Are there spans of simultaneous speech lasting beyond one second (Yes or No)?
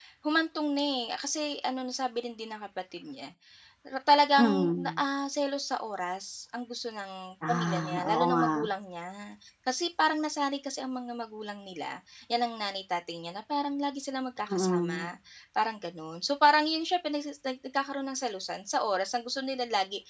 Yes